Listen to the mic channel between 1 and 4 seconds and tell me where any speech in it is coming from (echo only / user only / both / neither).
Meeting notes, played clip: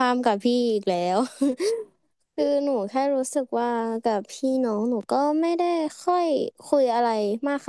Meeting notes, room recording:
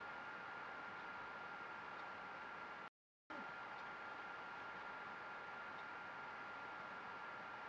neither